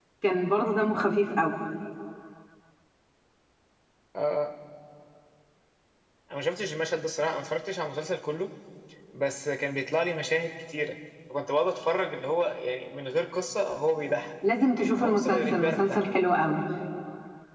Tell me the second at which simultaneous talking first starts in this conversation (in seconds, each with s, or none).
14.8 s